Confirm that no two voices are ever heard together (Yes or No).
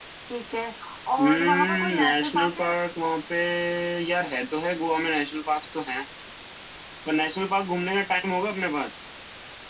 No